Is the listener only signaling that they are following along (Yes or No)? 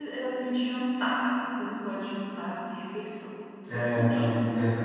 No